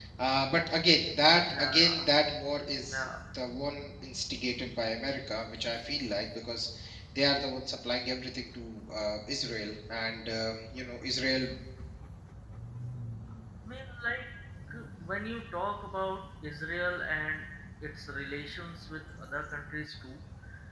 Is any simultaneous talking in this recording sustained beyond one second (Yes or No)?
No